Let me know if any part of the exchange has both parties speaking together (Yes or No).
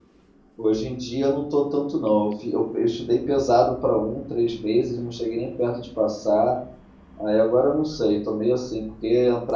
No